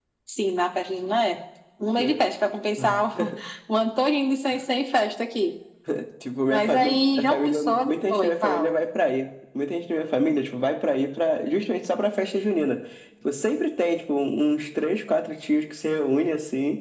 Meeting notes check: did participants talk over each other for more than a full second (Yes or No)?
Yes